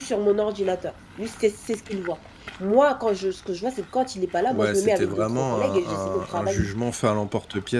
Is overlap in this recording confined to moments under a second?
No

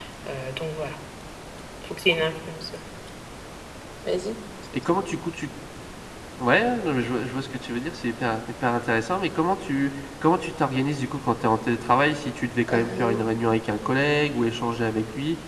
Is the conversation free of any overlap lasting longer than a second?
Yes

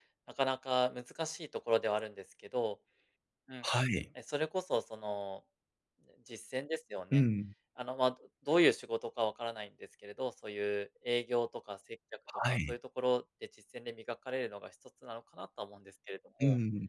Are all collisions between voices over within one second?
Yes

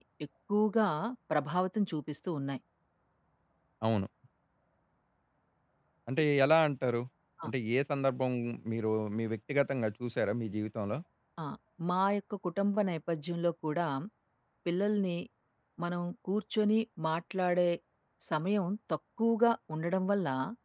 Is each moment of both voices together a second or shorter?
Yes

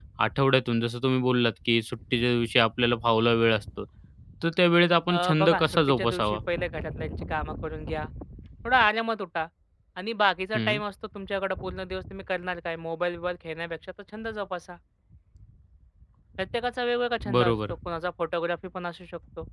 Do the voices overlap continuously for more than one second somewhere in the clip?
Yes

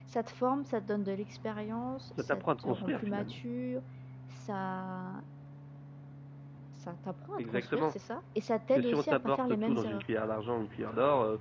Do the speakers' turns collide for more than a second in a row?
Yes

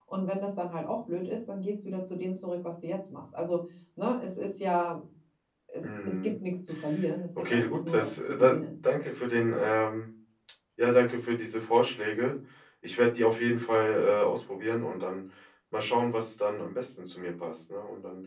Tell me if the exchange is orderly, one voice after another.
No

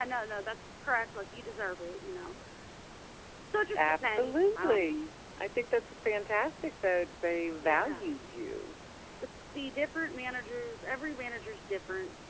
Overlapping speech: Yes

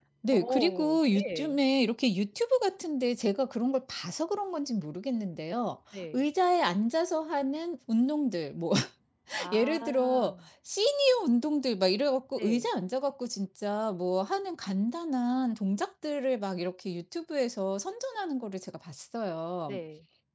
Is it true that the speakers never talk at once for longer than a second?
No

